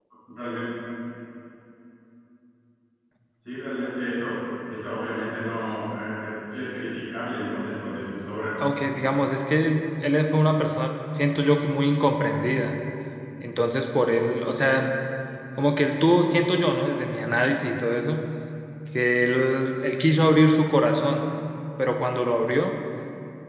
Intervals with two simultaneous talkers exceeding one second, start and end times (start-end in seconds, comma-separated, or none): none